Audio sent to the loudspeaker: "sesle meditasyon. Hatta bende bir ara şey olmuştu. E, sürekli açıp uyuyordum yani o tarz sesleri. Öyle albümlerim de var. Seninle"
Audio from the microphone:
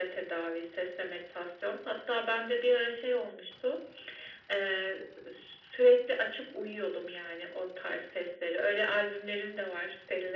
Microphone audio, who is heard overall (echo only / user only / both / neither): echo only